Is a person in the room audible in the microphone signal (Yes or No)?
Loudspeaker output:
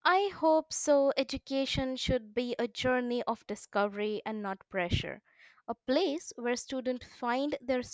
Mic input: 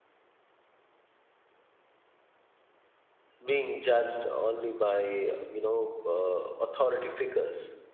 Yes